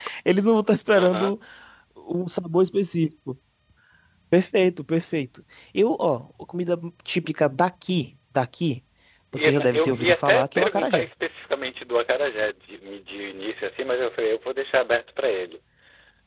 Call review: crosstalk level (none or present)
present